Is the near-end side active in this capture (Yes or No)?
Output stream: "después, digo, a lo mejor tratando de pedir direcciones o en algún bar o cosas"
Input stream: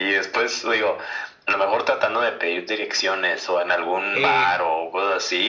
Yes